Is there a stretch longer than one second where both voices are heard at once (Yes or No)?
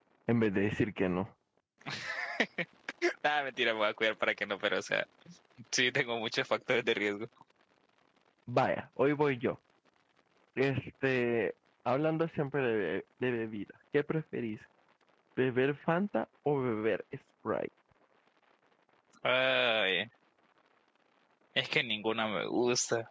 No